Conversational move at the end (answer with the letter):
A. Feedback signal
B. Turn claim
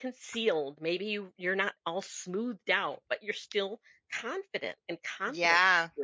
B